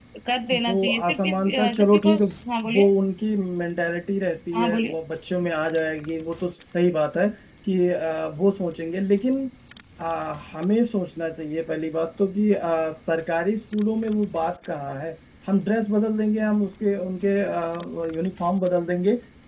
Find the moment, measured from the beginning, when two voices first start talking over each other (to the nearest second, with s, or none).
1 s